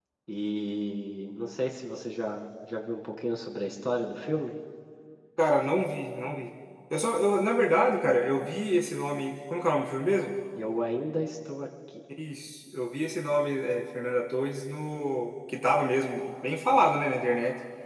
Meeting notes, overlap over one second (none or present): none